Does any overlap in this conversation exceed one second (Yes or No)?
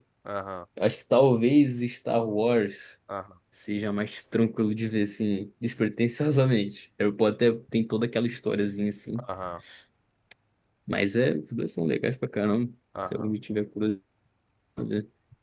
No